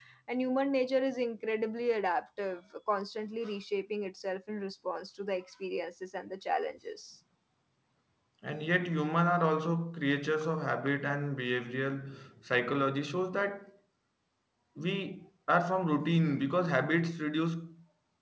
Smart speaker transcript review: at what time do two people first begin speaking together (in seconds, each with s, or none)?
none